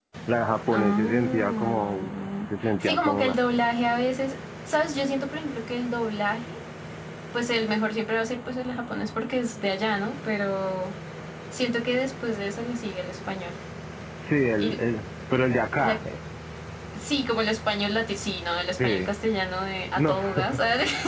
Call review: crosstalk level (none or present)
present